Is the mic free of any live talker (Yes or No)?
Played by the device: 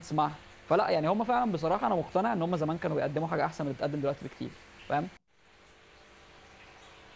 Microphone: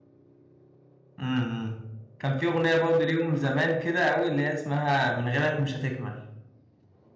No